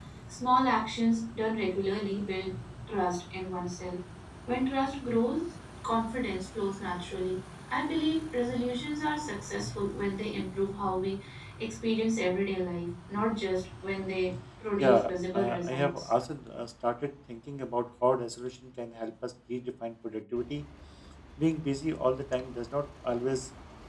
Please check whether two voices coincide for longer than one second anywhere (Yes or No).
Yes